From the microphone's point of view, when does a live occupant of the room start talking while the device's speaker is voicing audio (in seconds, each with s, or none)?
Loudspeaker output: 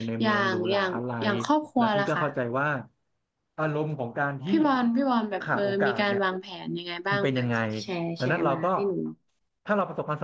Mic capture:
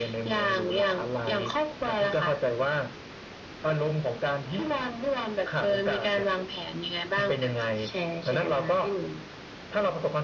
none